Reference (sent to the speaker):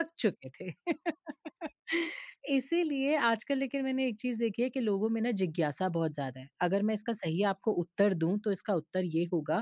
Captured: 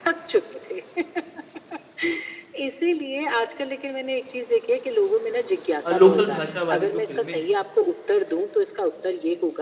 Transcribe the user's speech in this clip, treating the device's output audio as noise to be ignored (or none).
अ, लोकल भाषा वाली जो फ़िल्में हैं,